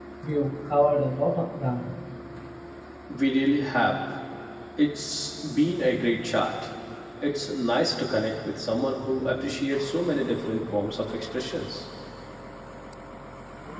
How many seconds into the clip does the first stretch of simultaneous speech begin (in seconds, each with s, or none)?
none